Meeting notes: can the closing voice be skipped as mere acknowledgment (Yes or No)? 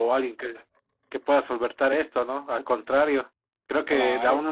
Yes